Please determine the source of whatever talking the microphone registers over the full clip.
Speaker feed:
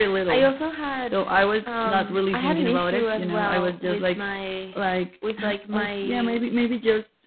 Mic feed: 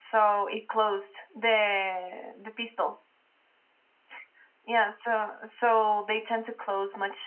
user only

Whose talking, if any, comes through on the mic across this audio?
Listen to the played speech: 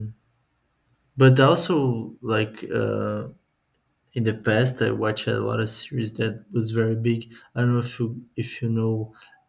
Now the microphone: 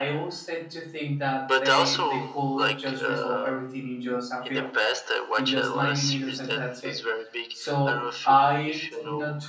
both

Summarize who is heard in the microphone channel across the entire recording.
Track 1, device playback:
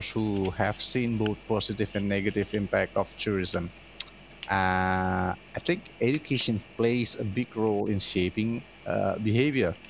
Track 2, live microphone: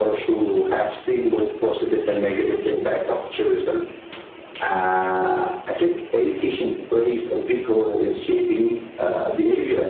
echo only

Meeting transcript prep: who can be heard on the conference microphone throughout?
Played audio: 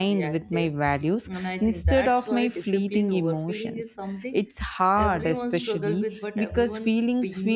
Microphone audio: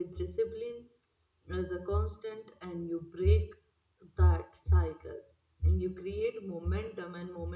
user only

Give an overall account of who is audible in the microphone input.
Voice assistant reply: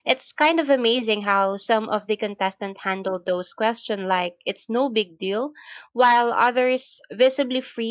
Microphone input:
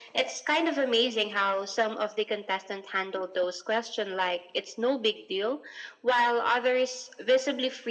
echo only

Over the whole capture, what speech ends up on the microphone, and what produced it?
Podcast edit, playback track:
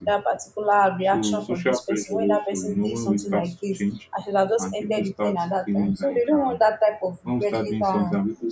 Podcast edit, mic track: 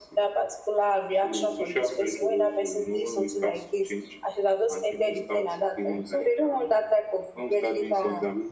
echo only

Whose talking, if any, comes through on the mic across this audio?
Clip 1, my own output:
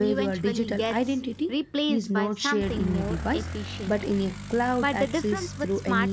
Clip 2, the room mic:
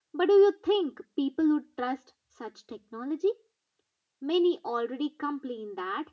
user only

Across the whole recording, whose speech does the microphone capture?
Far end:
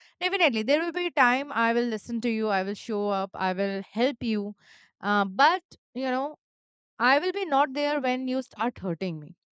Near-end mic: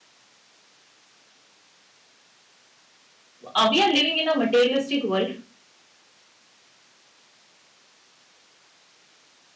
user only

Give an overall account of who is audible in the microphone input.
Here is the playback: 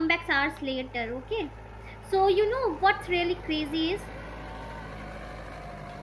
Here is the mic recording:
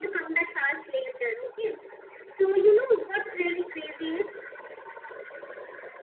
echo only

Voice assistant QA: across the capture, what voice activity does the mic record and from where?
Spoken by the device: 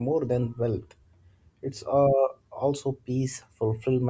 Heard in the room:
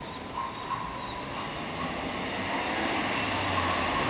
neither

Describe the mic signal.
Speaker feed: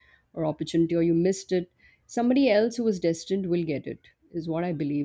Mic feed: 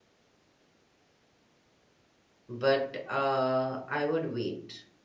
user only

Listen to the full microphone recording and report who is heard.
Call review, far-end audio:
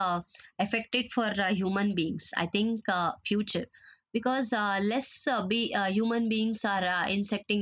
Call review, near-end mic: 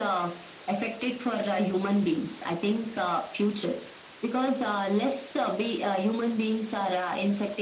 echo only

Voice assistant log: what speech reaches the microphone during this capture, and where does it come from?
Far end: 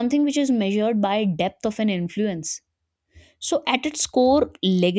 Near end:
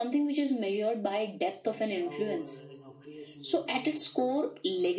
both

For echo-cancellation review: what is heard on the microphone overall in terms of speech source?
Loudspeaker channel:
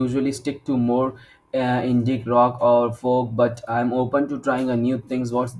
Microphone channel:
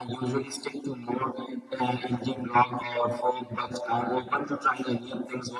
echo only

